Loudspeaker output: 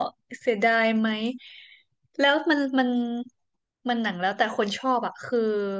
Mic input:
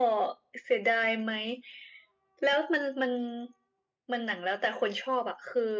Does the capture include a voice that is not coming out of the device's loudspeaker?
No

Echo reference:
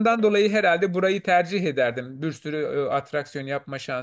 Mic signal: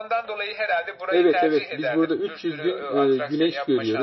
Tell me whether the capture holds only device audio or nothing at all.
No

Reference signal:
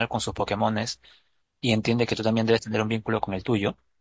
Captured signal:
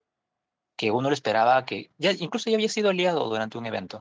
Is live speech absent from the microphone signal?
No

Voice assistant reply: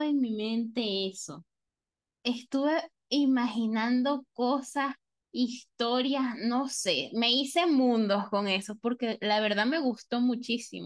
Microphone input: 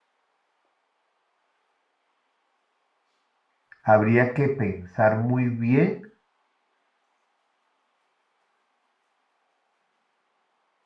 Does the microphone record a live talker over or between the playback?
Yes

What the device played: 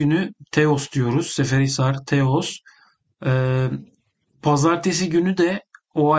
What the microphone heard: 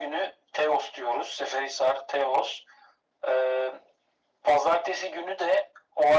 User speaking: No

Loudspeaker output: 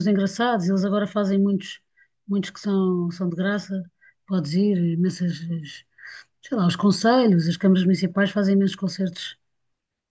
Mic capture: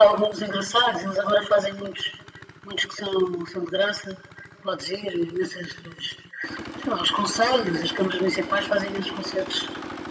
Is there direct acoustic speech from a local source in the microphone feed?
No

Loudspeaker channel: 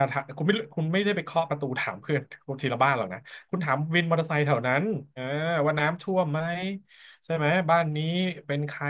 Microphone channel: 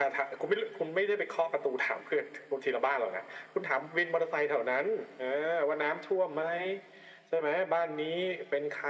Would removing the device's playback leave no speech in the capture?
Yes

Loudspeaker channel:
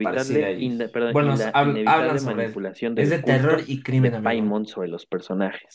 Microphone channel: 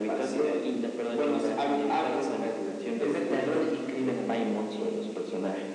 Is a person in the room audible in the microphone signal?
Yes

